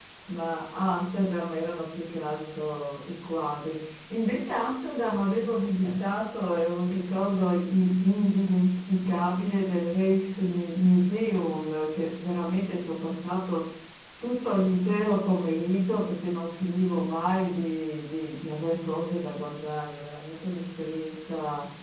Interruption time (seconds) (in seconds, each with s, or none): none